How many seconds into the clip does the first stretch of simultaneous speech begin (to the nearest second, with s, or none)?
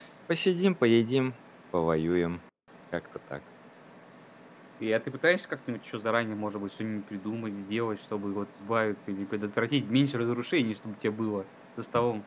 none